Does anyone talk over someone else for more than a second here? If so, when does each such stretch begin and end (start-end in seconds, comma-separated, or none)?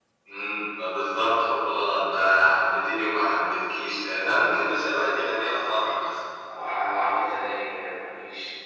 none